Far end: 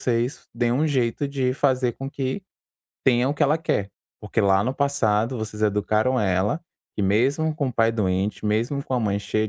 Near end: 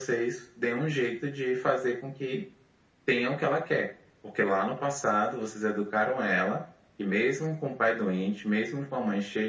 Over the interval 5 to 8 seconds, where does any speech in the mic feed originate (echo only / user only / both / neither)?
echo only